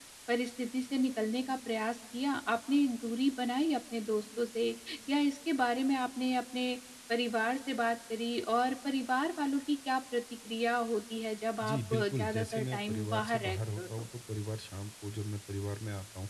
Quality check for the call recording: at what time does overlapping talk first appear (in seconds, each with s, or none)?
11.6 s